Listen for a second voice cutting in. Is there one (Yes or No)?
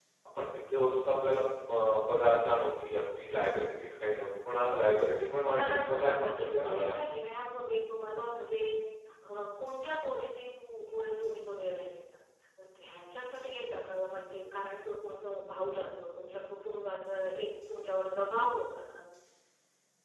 Yes